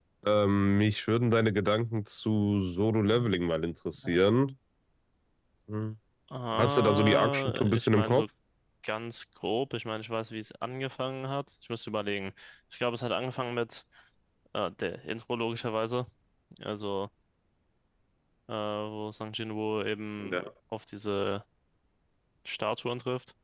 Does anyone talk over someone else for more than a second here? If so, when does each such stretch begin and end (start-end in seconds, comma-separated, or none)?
6.6-8.2